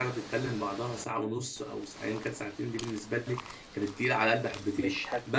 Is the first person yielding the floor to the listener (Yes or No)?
Yes